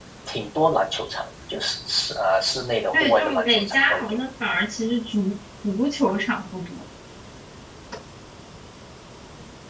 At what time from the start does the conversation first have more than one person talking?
3 s

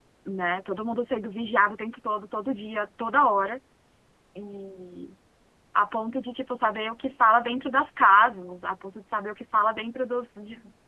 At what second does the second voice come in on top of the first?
none

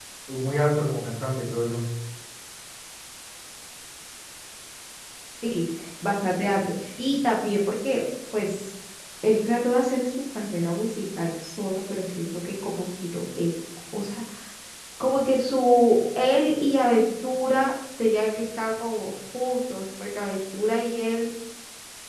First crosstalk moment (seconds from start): none

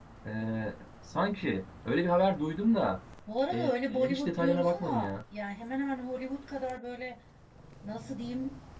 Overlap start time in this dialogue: 4 s

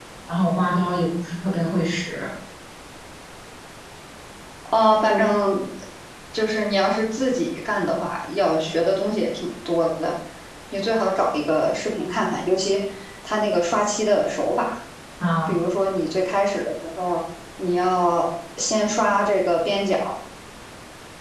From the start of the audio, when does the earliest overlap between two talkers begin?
none

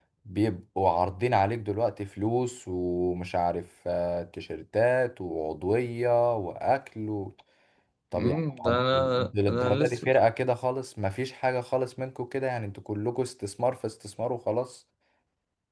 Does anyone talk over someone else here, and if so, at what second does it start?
8 s

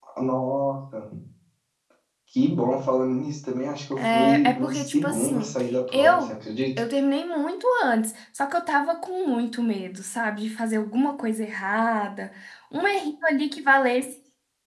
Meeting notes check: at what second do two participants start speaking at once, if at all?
4 s

